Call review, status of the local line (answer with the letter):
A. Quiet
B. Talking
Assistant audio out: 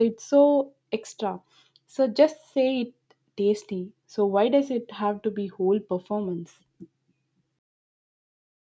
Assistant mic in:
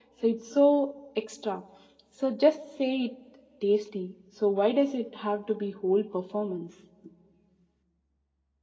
A